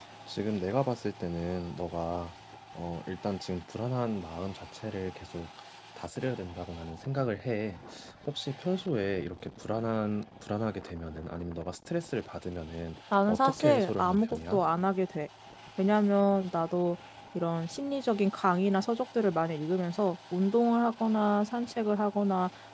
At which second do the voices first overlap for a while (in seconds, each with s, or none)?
13.1 s